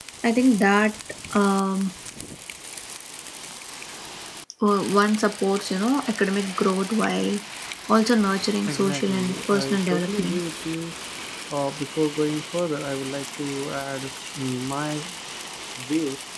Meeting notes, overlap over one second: present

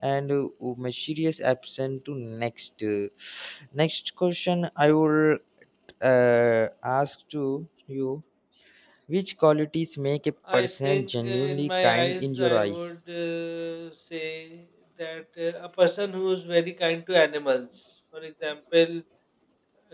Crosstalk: present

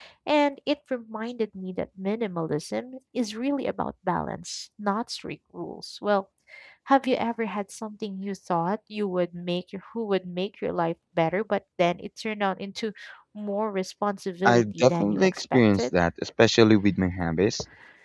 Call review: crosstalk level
present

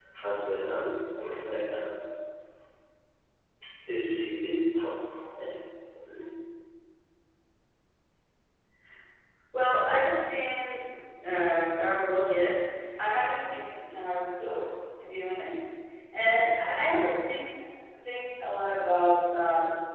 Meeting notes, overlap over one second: none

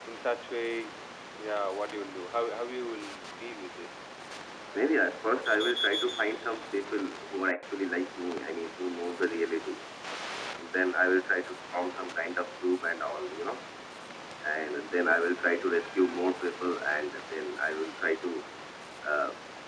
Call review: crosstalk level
none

